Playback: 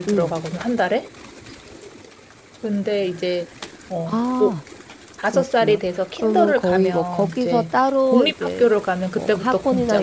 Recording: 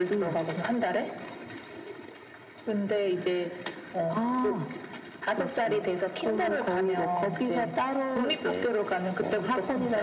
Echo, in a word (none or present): present